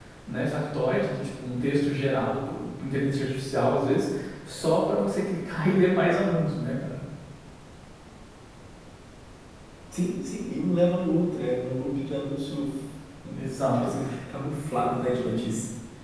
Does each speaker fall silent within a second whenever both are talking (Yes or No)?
Yes